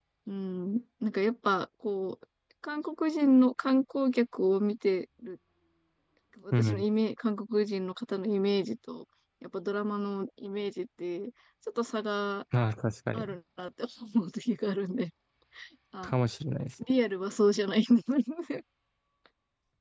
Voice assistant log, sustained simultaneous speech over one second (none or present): none